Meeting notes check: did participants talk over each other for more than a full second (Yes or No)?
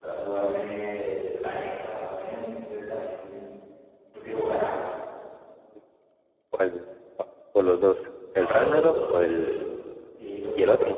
Yes